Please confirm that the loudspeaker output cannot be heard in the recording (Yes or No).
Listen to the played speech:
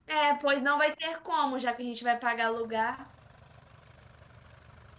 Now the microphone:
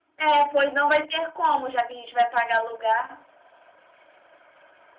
No